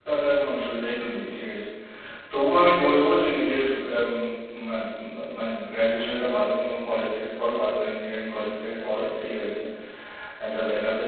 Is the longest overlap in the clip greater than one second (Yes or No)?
No